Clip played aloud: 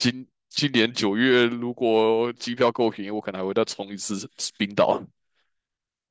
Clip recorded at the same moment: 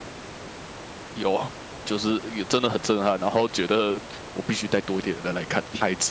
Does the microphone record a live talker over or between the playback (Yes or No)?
Yes